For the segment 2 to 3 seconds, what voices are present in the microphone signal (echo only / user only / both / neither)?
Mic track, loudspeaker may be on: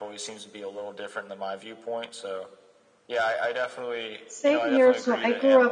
echo only